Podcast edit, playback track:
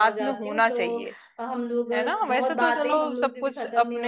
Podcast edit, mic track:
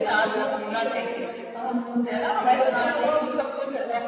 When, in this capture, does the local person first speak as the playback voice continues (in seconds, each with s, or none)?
none